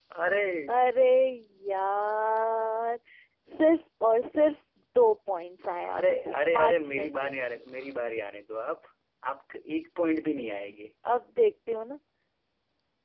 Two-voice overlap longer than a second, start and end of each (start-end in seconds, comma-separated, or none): 5.9-7.3